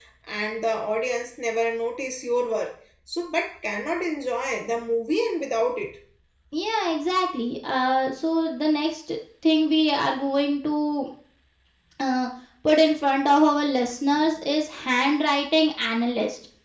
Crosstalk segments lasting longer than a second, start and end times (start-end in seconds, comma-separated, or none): none